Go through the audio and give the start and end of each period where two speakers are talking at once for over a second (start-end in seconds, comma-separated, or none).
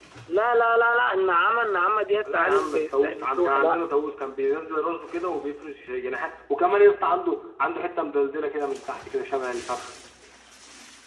2.2-3.8